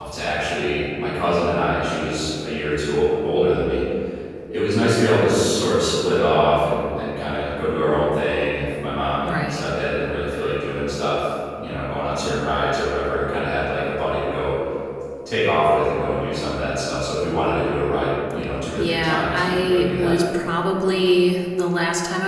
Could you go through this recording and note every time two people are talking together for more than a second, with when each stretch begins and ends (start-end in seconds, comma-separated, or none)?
18.8-20.2